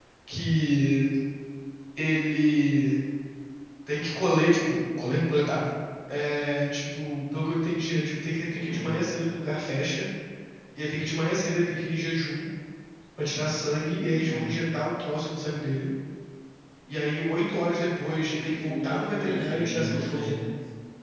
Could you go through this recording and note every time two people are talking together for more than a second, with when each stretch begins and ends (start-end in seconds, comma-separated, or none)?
18.6-20.4